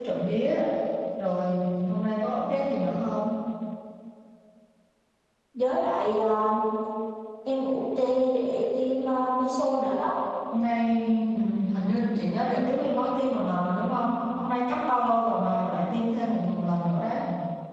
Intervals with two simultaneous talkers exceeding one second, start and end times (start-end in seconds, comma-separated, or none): none